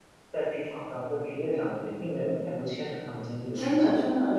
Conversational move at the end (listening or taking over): taking over